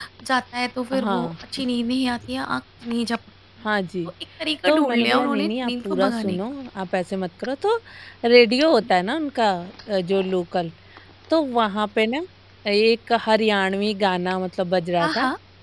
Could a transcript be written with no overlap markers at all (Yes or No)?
No